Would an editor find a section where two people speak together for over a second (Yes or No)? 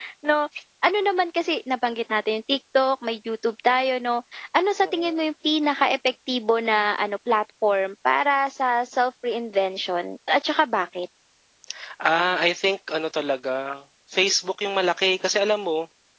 No